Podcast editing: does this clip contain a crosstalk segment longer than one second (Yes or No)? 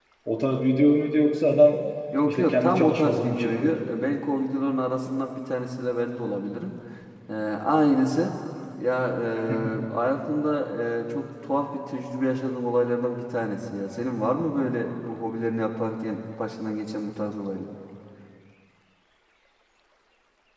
Yes